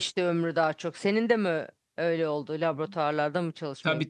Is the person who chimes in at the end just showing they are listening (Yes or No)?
No